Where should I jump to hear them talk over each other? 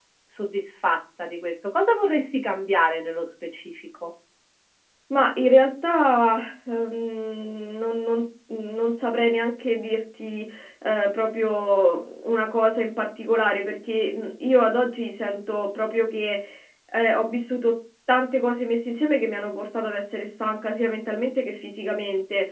none

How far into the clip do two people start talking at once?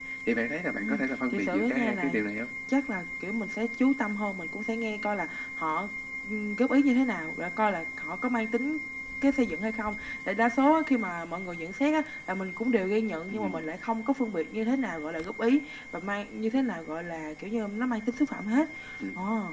1 s

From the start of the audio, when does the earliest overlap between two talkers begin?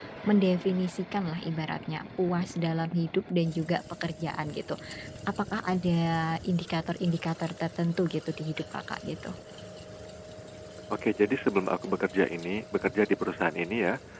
none

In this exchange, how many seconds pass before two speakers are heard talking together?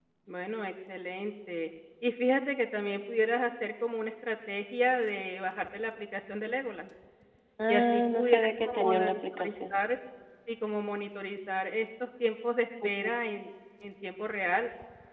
8 s

